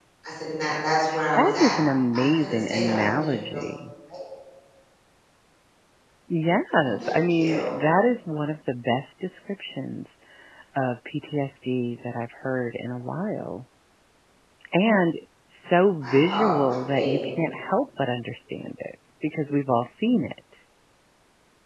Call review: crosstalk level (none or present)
present